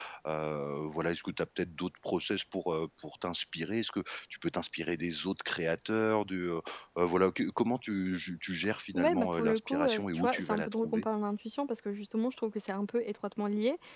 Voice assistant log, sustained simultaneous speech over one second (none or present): present